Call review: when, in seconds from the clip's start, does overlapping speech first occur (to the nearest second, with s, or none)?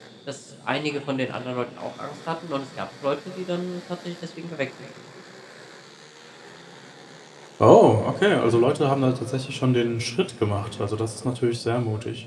none